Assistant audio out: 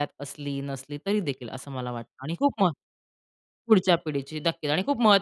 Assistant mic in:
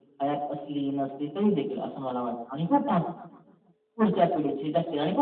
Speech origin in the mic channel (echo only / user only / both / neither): echo only